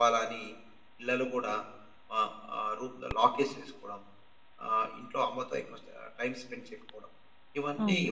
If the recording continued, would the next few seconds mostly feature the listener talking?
Yes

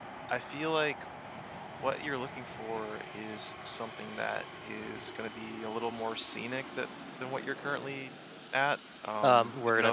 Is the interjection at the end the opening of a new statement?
Yes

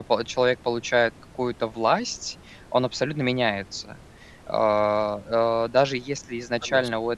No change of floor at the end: Yes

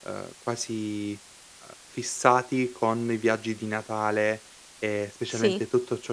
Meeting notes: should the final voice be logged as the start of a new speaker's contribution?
No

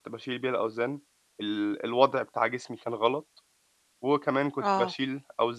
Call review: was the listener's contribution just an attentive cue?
Yes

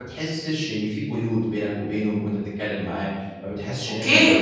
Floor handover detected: Yes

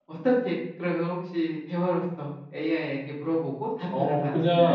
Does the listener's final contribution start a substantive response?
Yes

